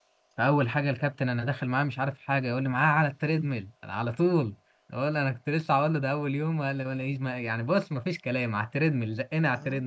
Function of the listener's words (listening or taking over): taking over